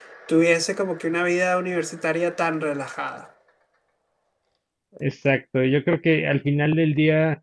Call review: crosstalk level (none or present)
none